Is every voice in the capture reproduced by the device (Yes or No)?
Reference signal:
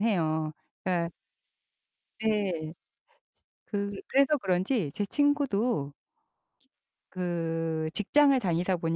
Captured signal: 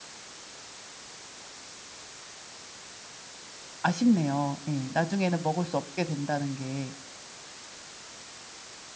No